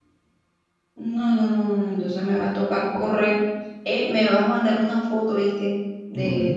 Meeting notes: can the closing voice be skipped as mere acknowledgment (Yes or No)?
Yes